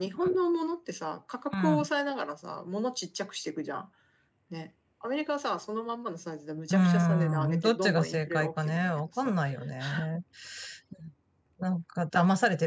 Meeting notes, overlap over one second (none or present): present